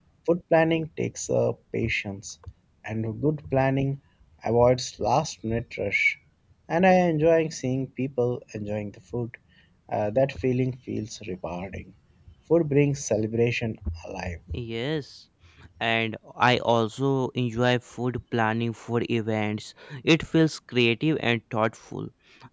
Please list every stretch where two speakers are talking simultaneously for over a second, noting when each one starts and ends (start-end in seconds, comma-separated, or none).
none